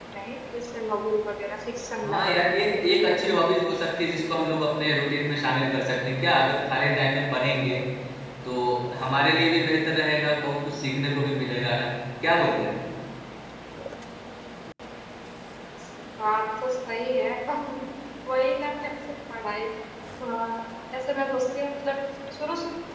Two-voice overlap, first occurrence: 2.0 s

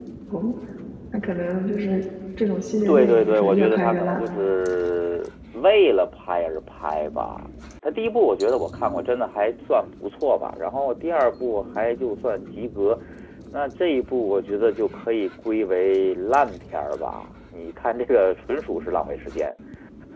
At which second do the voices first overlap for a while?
2.9 s

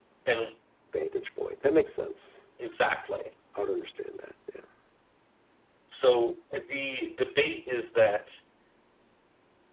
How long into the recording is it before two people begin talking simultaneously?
none

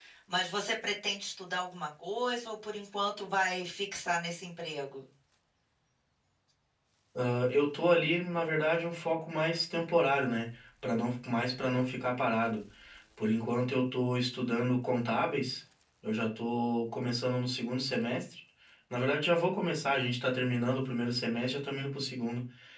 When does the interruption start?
none

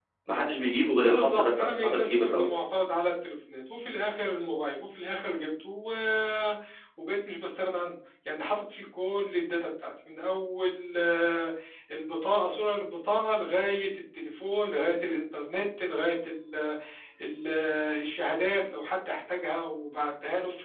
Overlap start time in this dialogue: 1.0 s

